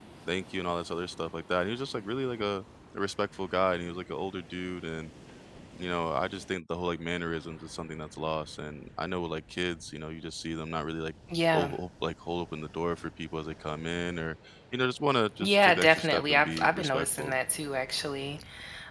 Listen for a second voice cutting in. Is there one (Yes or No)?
Yes